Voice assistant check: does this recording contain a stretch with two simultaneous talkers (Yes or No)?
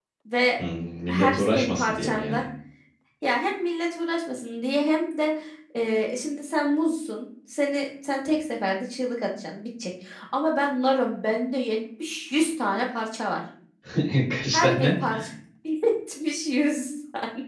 Yes